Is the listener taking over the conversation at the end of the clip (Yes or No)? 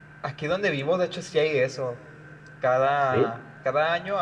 No